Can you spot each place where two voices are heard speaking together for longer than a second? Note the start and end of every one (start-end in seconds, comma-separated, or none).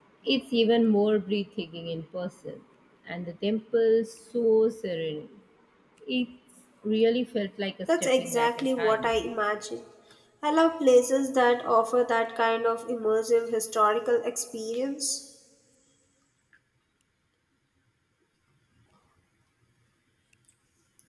7.9-9.1